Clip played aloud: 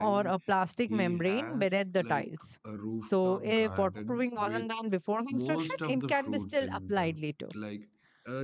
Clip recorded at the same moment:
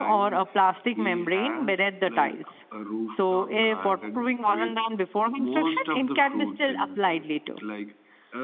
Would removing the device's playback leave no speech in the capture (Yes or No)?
Yes